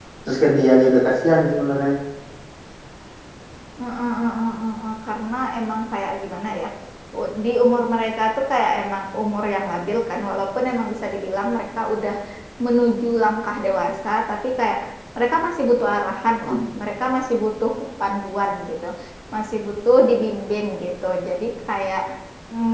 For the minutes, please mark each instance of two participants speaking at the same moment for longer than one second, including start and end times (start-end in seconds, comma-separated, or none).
none